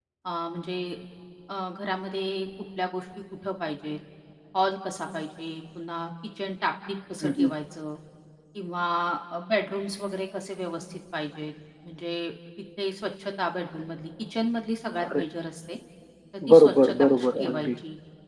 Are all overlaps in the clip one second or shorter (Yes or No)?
No